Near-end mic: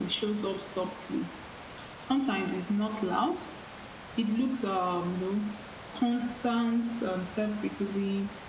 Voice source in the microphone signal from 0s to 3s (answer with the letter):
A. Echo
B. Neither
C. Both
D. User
A